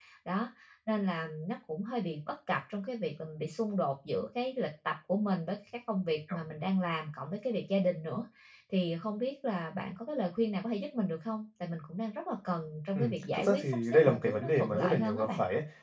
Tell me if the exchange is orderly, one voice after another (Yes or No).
No